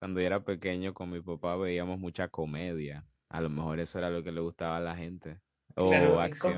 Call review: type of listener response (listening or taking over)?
taking over